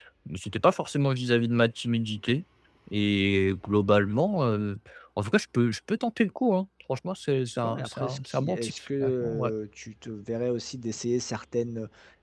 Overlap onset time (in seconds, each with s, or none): 7.6 s